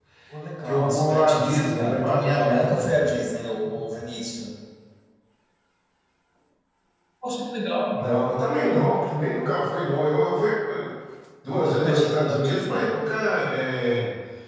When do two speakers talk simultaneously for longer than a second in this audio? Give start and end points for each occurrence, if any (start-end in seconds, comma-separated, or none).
0.6-2.9, 11.6-12.9